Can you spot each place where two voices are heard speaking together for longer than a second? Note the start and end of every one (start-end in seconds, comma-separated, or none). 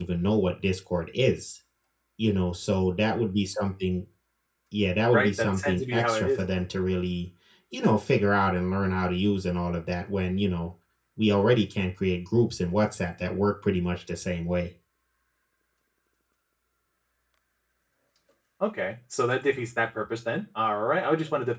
5.1-6.4